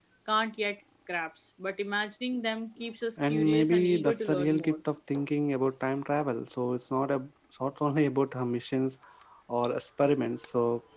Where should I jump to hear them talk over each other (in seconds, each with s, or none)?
3.2 s